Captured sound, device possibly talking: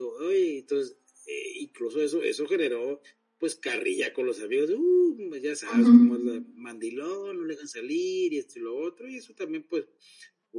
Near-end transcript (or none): Ujú.